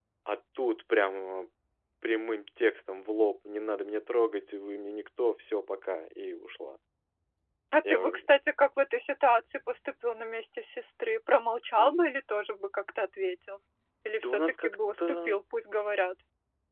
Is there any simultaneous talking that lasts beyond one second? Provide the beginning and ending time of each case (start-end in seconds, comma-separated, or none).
14.2-15.4